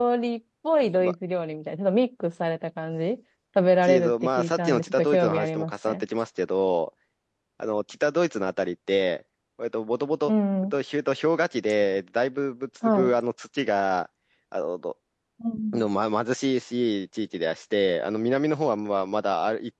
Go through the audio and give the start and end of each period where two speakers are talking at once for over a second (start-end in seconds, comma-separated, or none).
3.8-6.0